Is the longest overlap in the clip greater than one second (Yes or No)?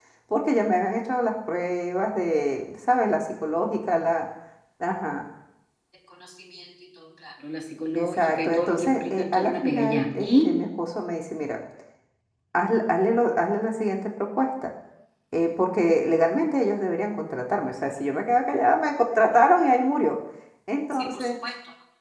Yes